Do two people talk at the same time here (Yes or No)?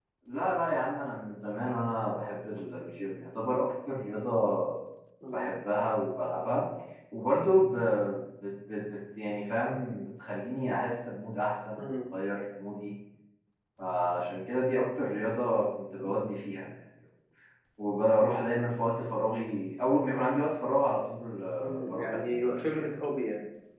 Yes